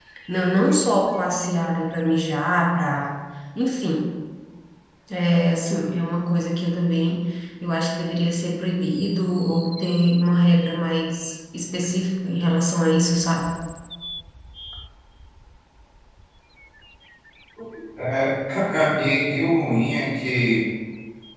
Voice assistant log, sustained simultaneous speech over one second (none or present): none